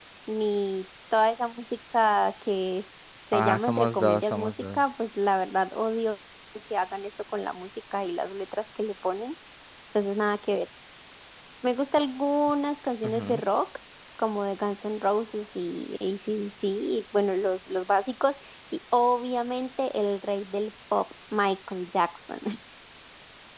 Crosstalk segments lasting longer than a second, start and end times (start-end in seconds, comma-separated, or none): 3.3-4.8